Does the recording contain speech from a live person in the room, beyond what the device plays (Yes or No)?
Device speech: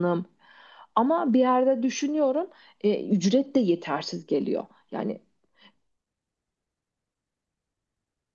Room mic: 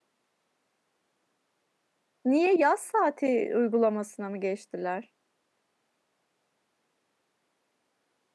Yes